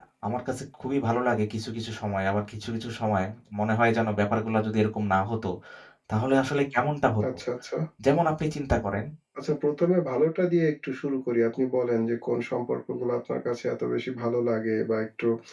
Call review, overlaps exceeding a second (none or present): none